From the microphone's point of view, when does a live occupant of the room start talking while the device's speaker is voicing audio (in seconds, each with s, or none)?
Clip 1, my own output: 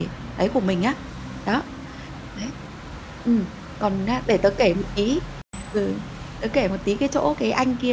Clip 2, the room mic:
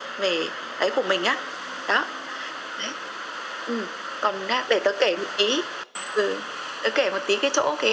none